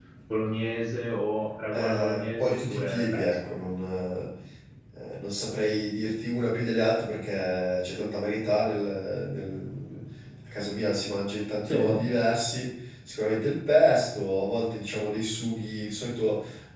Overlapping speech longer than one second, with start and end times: 1.7-3.5

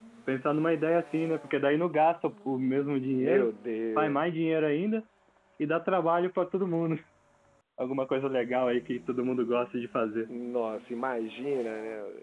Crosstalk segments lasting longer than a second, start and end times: none

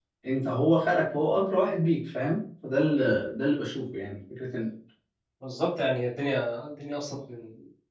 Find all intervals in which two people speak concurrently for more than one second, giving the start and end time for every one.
none

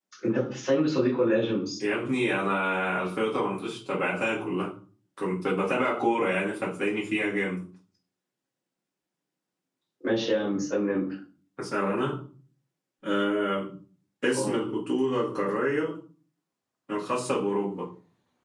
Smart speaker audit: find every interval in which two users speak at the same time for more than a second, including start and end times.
none

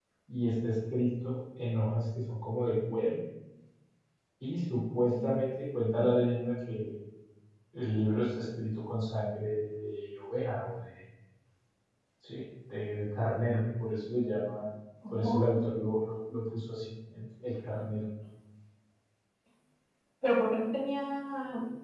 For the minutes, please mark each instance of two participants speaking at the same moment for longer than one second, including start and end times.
none

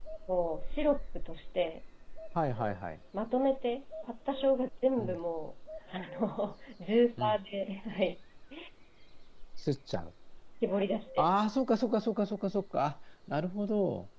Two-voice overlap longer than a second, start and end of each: none

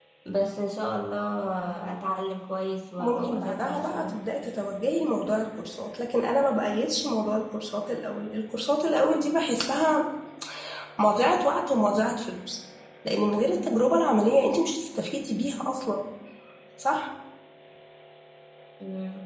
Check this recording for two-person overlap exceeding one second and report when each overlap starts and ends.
3.0-4.2

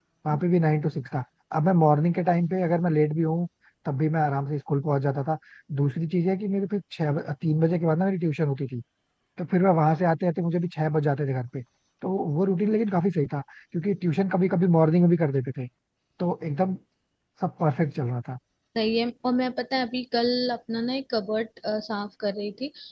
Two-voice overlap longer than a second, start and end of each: none

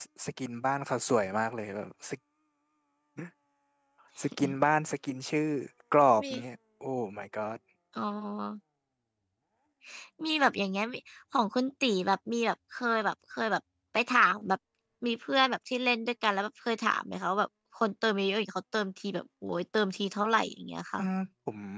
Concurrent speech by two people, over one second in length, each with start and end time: none

